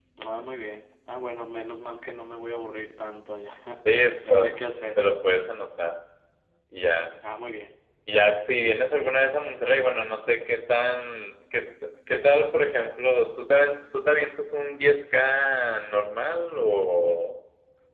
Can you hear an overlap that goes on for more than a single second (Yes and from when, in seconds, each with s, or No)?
No